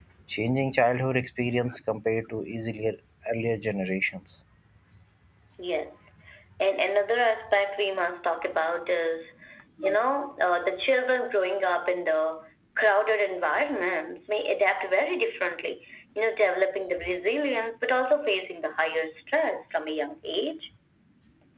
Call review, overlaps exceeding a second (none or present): none